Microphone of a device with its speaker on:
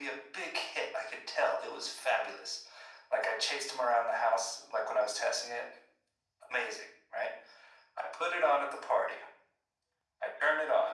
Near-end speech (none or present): none